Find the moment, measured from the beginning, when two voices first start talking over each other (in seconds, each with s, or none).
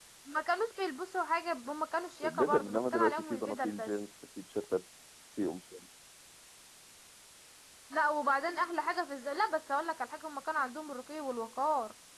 2.2 s